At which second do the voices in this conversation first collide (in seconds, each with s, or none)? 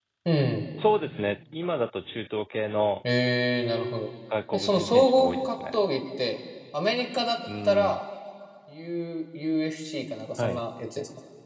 4.5 s